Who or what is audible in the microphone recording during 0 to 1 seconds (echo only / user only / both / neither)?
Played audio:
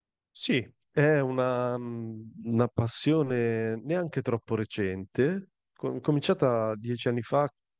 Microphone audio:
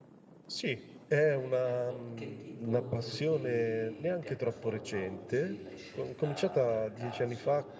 echo only